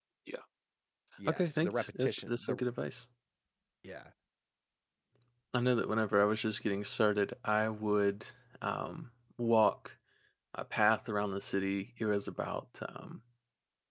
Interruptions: present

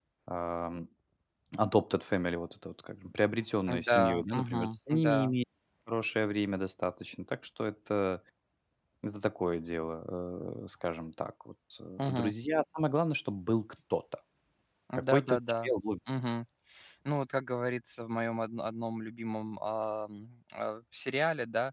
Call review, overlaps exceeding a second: present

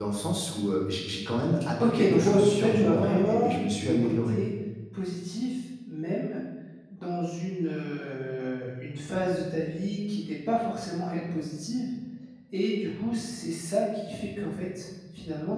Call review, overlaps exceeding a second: present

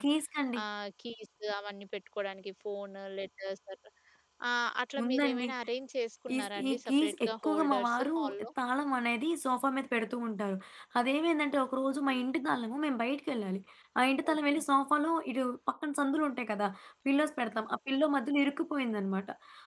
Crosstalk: present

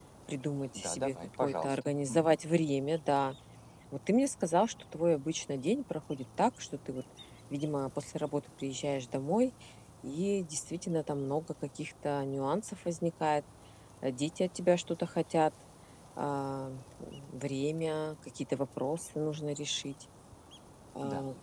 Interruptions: present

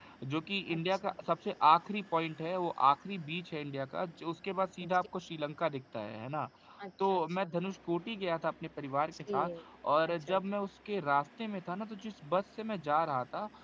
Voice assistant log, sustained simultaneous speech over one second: none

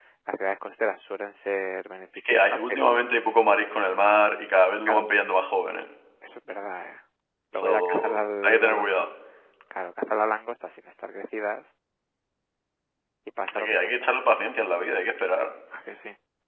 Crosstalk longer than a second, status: present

